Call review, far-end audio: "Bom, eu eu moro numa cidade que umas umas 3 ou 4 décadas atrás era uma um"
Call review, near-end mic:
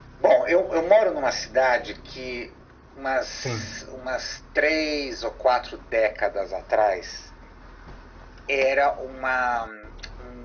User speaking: Yes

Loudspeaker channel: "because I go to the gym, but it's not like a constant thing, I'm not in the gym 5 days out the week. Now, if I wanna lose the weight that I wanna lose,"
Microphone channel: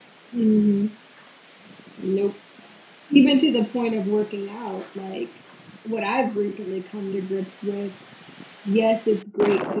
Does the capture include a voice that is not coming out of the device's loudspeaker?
Yes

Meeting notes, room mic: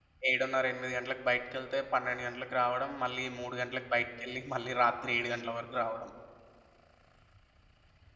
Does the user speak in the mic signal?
Yes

